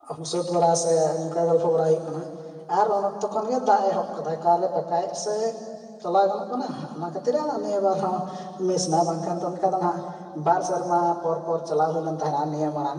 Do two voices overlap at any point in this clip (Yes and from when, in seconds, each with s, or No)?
No